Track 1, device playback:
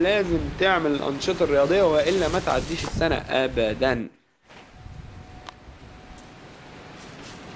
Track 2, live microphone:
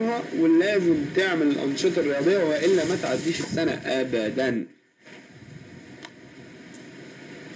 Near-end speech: none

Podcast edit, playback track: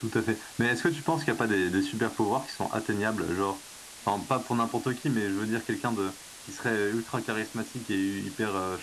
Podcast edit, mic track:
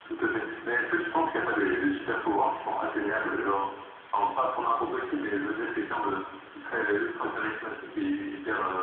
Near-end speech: none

